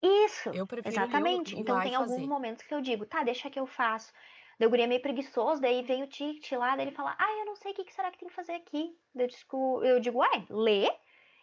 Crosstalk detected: Yes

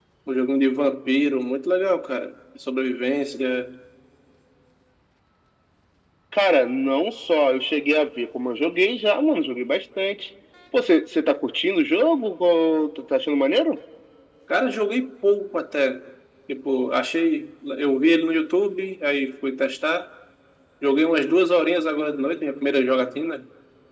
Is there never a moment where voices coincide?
Yes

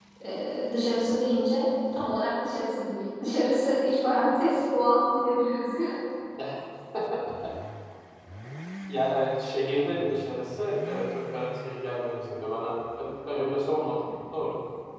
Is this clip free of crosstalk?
Yes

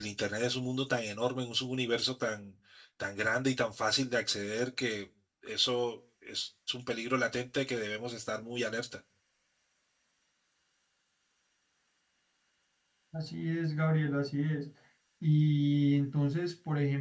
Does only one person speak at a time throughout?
Yes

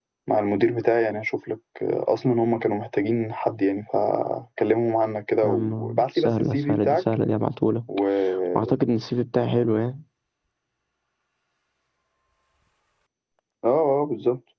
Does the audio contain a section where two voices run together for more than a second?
Yes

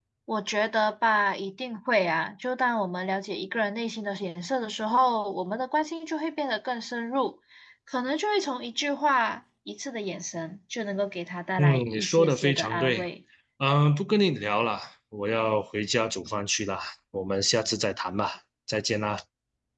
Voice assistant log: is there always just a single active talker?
No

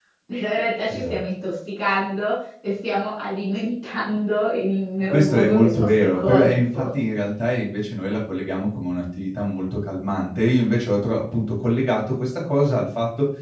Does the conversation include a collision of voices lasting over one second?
Yes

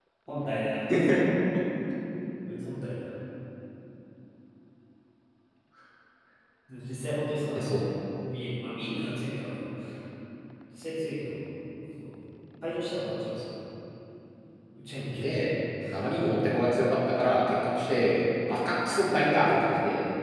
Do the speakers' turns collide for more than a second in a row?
No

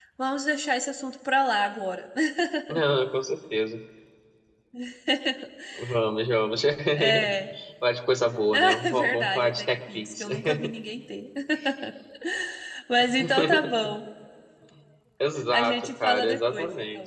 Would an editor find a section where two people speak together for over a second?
Yes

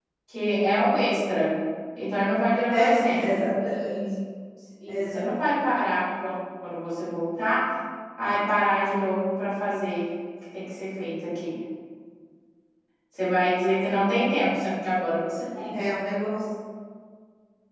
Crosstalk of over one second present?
Yes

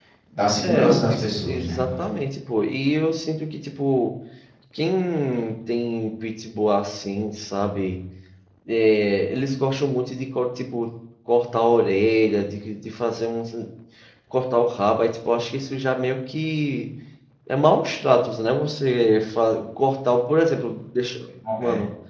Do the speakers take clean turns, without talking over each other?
No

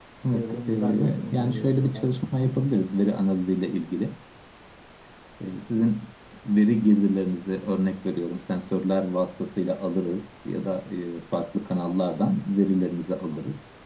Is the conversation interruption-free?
No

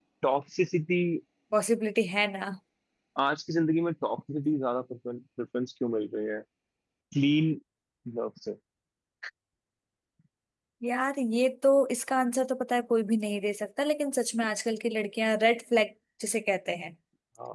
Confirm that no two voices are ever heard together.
Yes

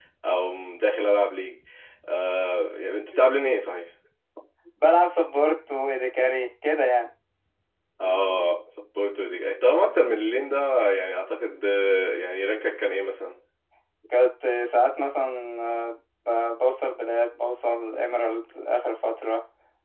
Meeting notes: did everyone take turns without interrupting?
Yes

